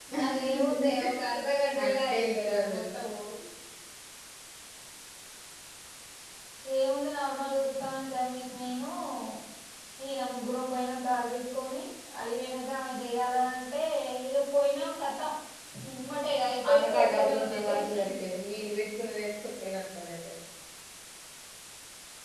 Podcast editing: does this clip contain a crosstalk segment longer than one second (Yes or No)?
Yes